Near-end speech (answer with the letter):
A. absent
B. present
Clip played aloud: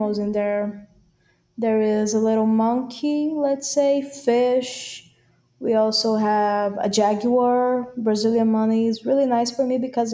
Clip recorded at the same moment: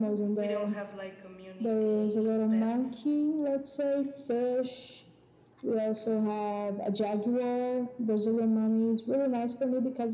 B